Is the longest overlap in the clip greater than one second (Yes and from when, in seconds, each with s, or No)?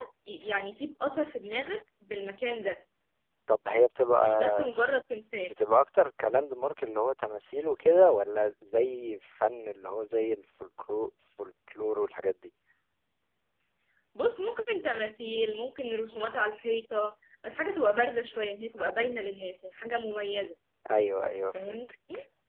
No